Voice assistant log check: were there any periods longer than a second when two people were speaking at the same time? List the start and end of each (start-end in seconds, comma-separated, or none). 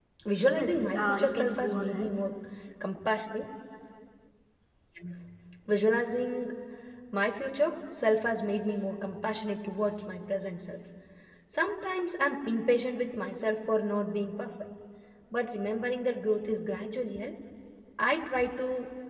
0.5-2.1